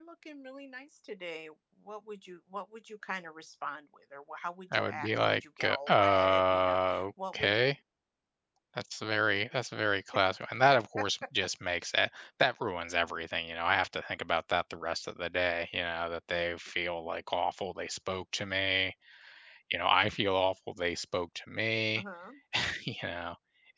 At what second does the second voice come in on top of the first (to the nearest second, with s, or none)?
5 s